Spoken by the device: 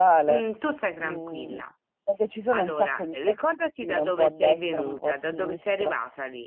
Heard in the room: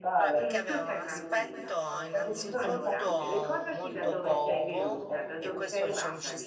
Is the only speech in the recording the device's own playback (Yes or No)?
No